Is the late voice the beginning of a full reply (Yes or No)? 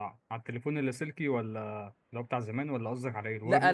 Yes